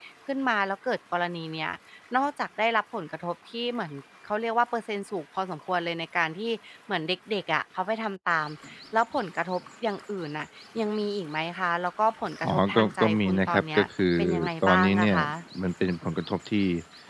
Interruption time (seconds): 12.4 s

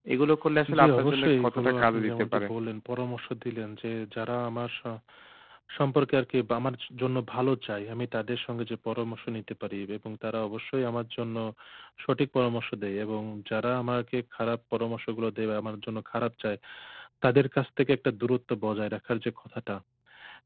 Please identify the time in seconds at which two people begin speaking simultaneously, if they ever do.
0.8 s

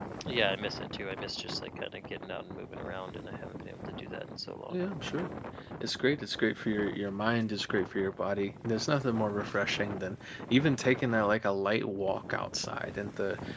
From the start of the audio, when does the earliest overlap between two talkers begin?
none

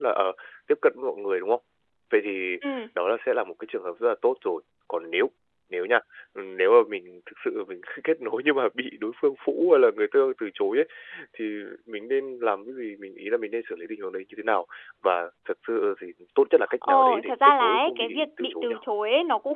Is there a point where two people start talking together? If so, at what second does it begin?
16.8 s

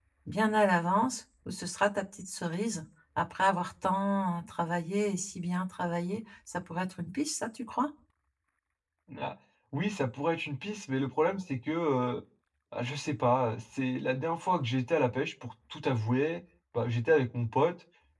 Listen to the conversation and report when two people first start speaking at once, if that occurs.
none

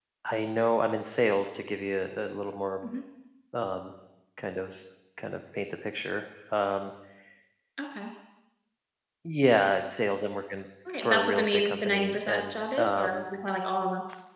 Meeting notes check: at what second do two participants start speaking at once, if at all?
10.8 s

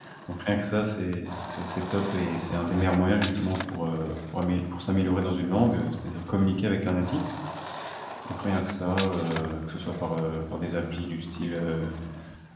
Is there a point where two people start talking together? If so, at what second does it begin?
none

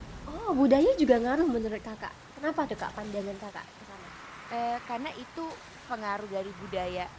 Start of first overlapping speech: none

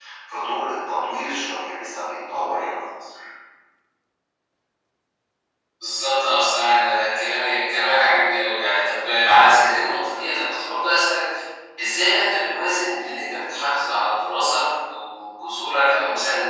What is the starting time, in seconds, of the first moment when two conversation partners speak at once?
none

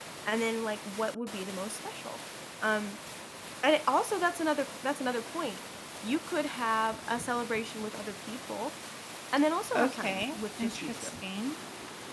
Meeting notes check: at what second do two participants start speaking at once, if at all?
9.7 s

